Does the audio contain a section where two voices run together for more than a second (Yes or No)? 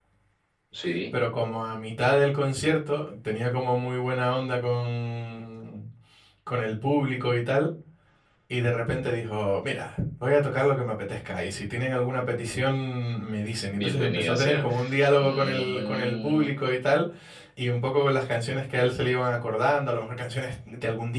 Yes